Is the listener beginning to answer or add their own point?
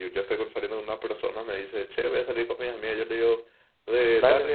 No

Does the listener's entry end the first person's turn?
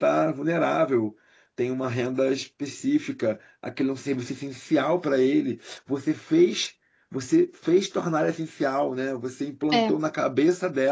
No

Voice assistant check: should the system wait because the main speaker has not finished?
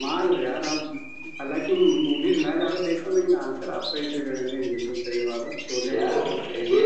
No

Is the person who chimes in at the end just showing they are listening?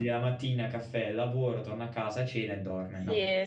No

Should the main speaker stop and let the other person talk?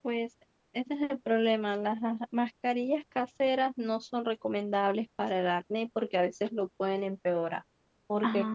No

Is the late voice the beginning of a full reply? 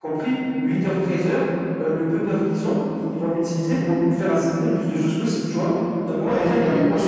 Yes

